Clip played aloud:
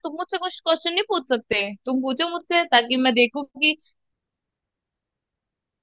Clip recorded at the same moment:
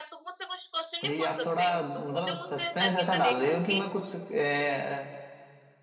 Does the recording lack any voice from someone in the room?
No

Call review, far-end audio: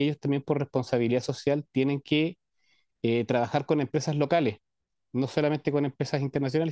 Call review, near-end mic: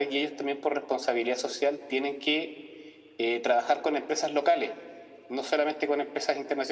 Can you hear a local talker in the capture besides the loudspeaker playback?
No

